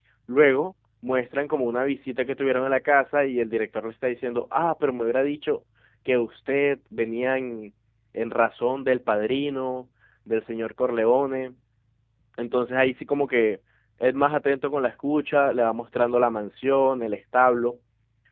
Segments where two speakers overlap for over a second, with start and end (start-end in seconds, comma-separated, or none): none